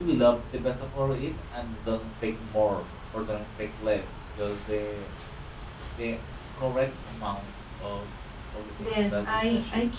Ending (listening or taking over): taking over